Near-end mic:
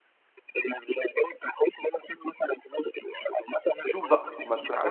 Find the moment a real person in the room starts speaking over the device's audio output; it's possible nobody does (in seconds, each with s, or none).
3.9 s